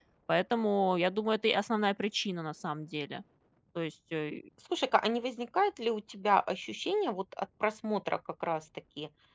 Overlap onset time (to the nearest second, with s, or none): none